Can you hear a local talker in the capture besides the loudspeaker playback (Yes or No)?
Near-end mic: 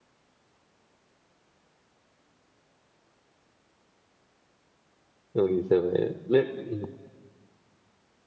Yes